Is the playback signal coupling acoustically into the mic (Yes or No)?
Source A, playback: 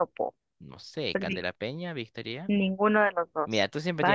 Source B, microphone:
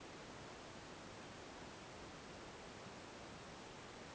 No